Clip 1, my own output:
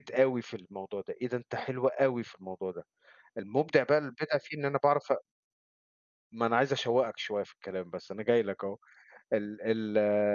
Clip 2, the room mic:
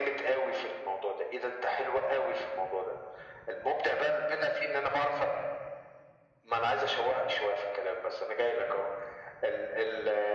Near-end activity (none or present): none